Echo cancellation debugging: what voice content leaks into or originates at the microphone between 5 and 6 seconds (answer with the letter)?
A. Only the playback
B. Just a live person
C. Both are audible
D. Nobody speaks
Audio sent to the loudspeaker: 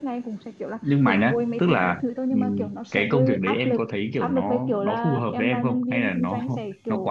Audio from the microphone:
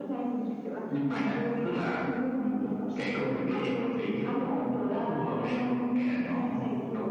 A